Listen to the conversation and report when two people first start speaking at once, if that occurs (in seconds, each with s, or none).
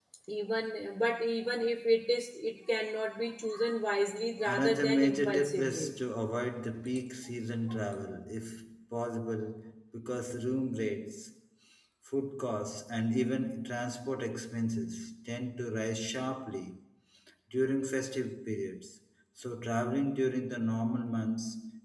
4.4 s